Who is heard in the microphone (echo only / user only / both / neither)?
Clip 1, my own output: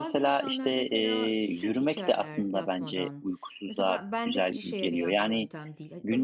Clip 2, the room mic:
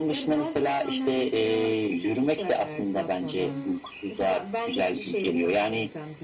both